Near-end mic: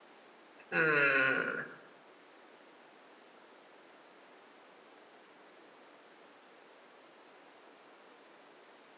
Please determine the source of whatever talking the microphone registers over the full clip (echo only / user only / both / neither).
user only